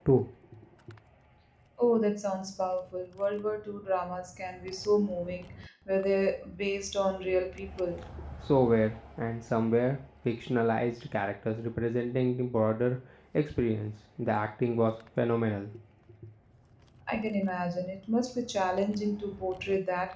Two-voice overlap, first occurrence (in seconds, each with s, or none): none